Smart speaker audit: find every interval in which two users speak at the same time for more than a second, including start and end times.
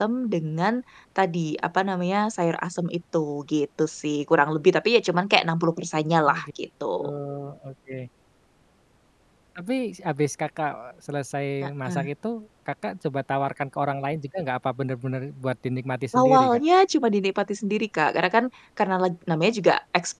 none

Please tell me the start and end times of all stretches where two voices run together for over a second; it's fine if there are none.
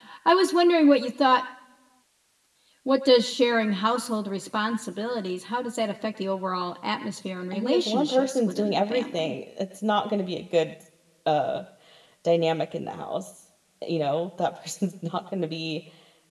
7.5-9.3

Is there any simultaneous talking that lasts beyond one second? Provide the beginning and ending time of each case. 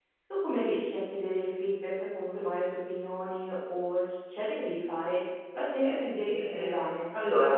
5.8-7.0

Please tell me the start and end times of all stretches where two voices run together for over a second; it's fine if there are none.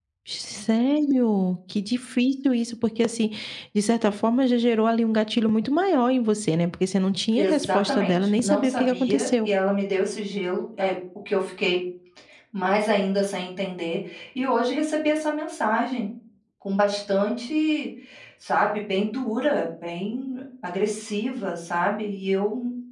7.4-9.5

